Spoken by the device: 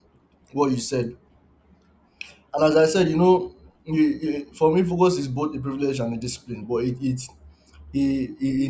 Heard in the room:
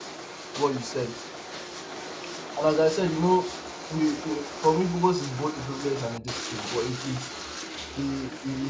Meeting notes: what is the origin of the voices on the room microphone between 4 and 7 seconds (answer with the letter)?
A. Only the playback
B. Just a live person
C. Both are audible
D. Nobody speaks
A